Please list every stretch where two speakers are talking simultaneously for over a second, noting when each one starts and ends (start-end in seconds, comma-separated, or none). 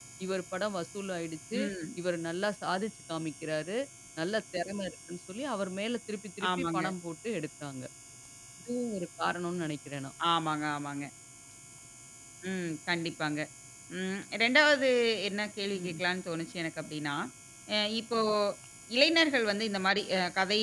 none